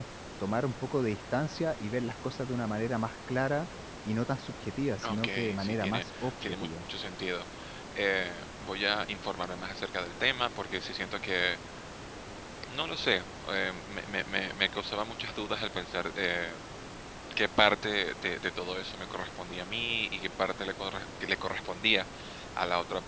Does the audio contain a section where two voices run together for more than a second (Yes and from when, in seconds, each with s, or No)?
Yes, from 5.0 s